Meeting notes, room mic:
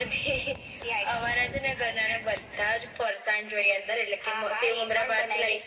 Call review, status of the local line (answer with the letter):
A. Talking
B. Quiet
B